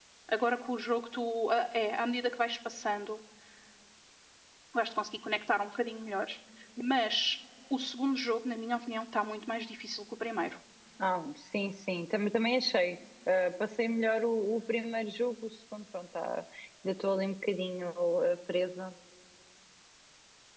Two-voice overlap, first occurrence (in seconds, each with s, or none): none